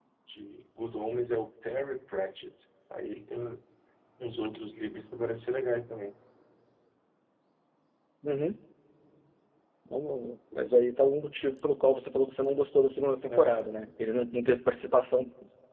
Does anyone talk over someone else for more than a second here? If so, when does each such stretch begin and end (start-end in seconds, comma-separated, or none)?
none